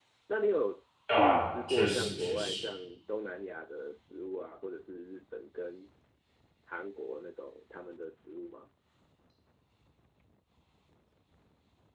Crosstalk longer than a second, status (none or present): present